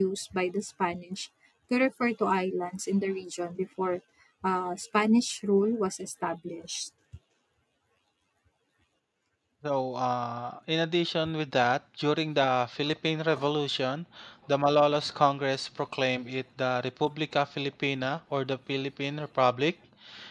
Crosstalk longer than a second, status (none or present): none